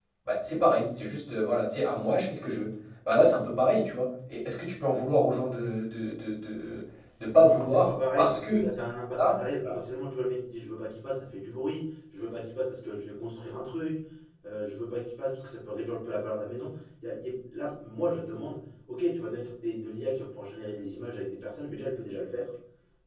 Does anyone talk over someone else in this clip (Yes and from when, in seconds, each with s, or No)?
Yes, from 7.4 s